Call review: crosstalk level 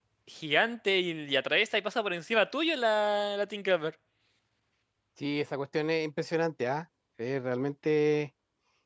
none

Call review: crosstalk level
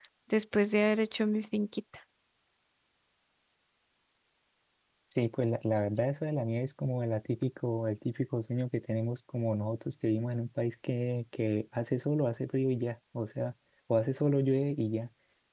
none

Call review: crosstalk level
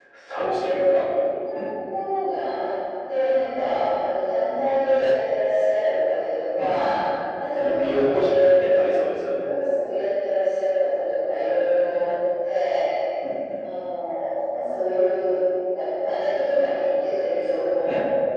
present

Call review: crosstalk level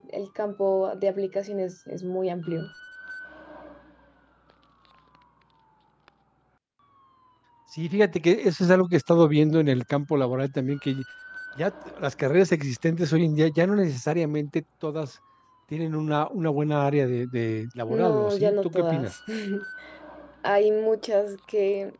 present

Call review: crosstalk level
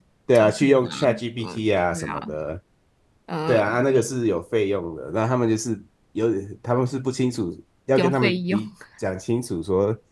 present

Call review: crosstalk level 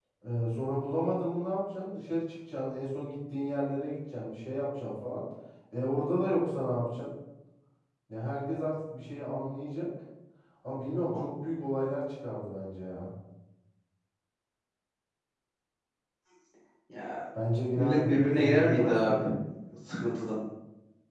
present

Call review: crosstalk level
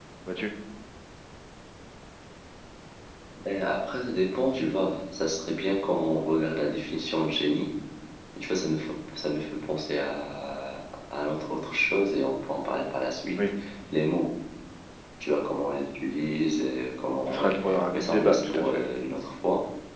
present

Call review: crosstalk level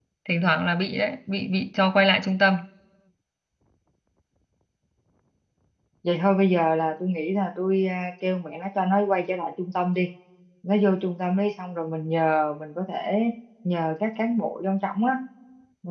none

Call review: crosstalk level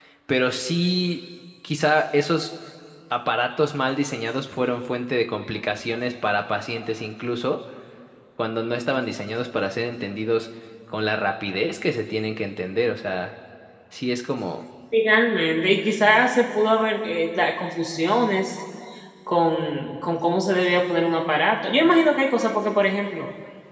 none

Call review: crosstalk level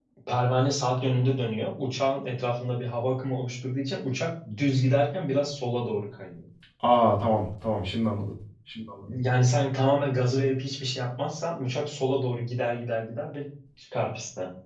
none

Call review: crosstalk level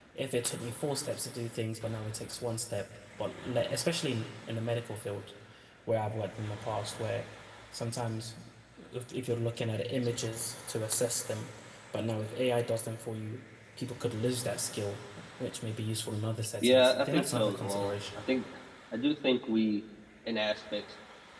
present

